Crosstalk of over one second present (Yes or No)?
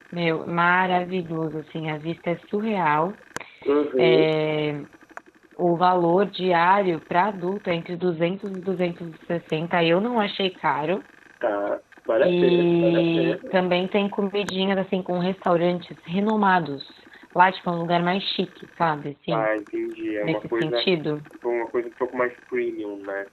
Yes